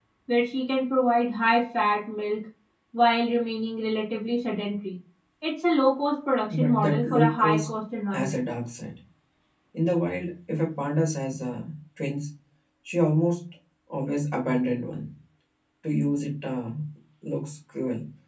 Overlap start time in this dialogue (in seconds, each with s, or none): 6.5 s